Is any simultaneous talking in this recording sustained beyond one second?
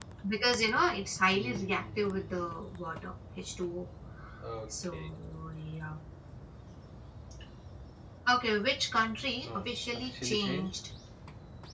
Yes, from 1.3 s

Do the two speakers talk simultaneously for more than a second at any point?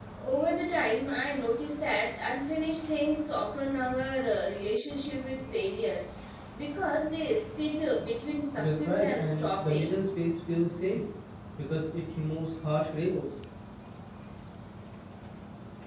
Yes, from 8.6 s

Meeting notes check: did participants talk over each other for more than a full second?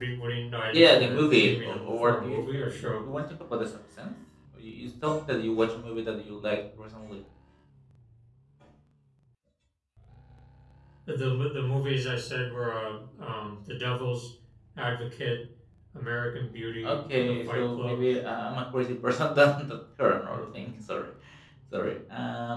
Yes, from 0.7 s

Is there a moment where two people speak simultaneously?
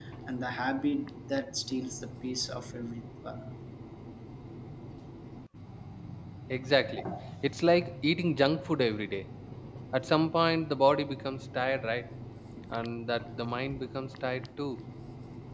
No

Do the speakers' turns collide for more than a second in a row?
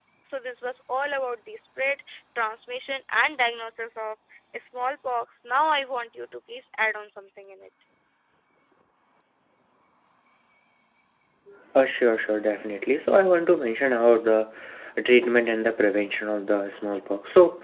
No

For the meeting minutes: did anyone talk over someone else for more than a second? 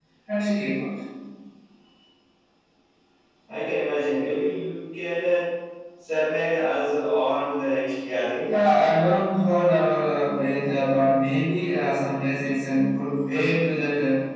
No

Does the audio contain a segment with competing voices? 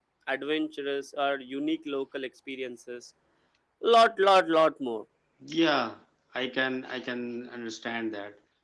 No

